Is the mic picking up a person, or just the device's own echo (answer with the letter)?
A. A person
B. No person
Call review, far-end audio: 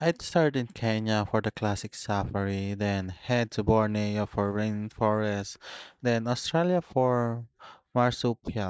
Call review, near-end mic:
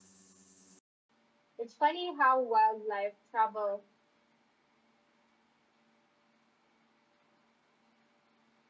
A